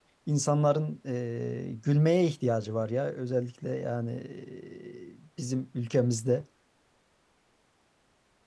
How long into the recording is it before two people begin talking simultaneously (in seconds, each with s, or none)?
none